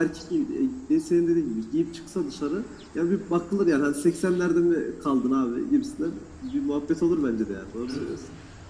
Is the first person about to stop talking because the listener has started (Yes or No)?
Yes